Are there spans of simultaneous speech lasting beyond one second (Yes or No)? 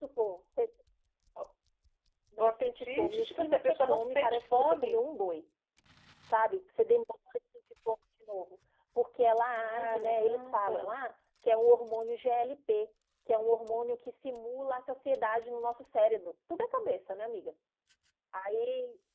Yes